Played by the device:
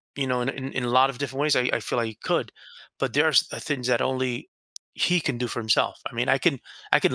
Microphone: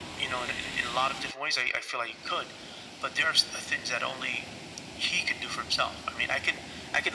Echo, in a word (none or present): present